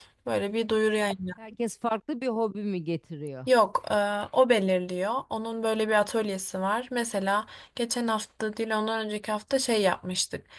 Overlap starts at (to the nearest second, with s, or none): none